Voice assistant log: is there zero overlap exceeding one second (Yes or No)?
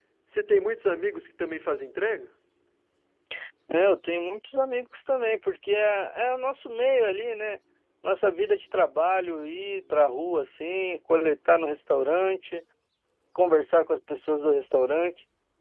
Yes